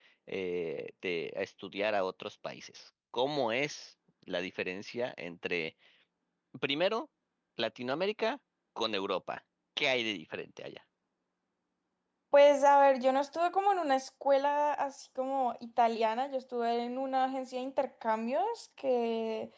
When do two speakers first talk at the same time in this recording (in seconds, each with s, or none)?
none